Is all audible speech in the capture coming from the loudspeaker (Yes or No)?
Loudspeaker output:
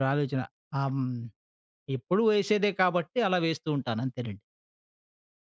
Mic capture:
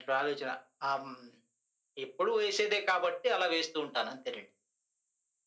Yes